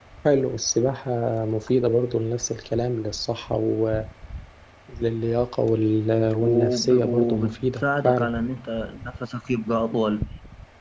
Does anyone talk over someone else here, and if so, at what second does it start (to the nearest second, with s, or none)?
6 s